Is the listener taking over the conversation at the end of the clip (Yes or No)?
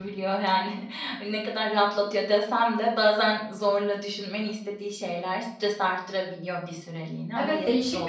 Yes